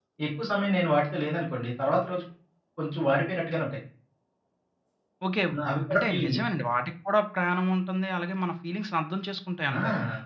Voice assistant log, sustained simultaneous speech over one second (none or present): none